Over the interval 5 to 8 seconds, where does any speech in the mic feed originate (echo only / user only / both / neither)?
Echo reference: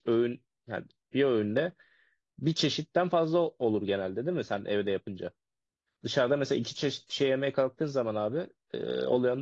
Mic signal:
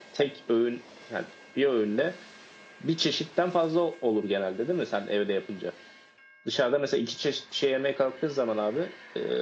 echo only